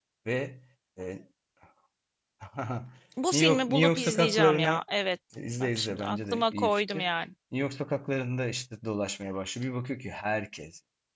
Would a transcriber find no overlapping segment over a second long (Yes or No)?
No